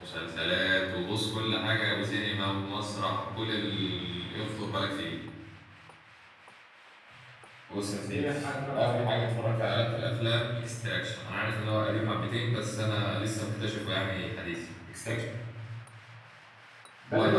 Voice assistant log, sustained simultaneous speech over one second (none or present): none